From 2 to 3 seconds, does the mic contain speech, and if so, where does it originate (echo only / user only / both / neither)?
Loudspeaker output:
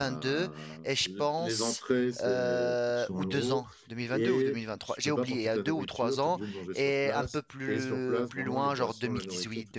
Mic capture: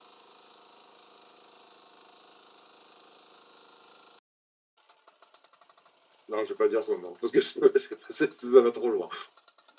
neither